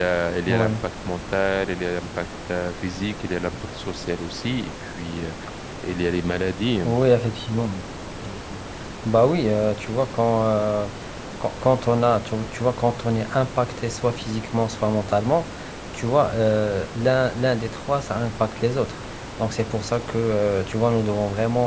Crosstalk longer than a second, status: none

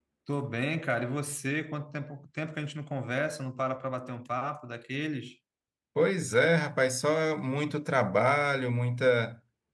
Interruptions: none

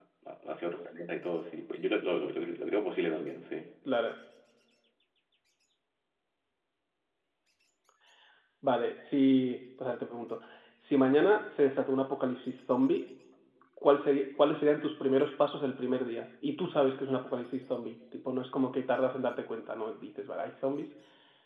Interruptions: none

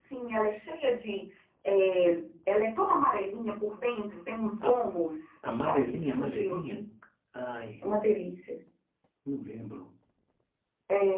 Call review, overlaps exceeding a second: present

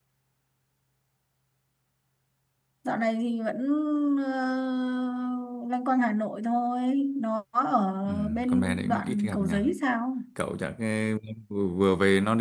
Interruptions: present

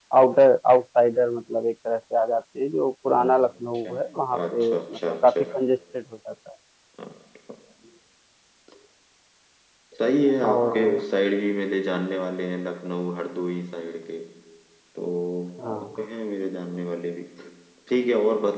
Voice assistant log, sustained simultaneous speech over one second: present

